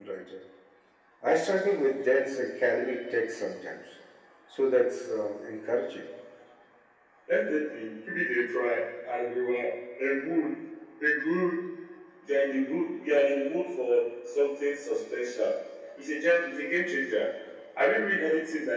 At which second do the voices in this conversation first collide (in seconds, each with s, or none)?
none